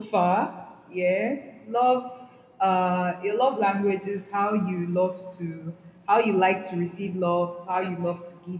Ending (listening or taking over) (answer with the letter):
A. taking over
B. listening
B